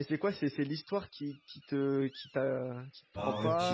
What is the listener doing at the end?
taking over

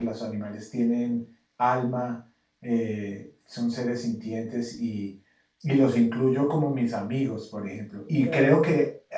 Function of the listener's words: listening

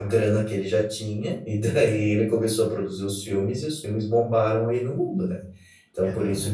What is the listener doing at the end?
listening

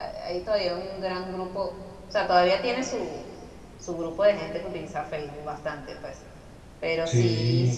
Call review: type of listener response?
listening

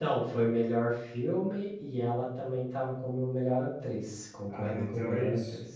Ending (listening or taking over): taking over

